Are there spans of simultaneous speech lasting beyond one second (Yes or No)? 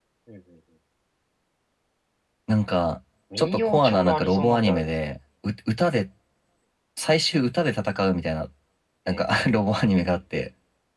Yes